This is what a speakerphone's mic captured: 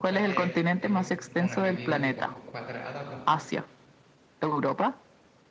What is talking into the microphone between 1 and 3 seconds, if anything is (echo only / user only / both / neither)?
both